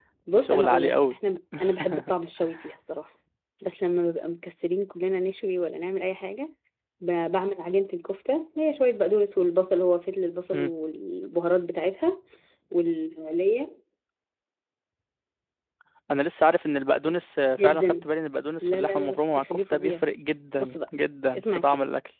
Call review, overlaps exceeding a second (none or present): present